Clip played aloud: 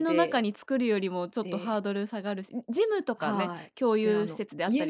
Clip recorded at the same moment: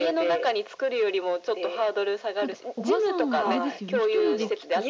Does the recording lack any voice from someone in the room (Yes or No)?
No